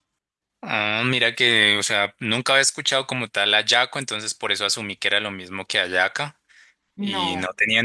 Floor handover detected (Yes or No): No